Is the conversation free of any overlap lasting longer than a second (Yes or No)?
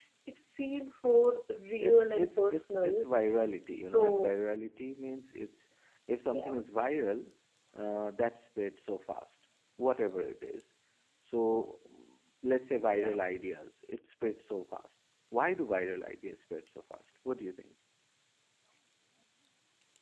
No